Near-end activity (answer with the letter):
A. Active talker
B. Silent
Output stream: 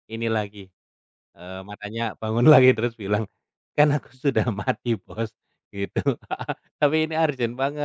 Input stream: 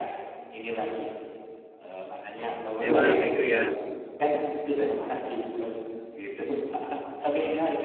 A